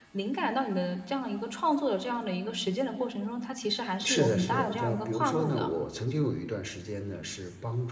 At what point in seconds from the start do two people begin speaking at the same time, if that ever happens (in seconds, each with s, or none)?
4.0 s